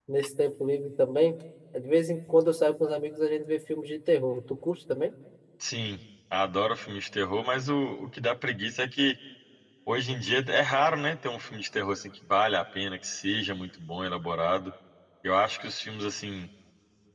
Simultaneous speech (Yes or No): No